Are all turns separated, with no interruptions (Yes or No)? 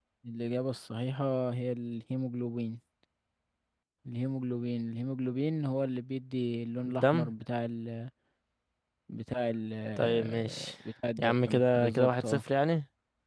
No